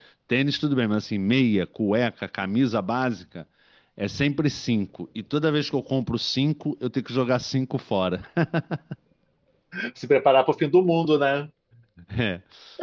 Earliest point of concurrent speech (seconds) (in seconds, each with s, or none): none